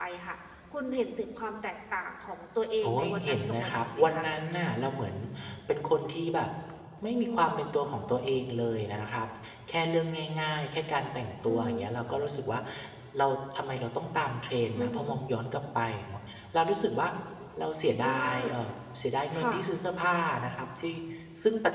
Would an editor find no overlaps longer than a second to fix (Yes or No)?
No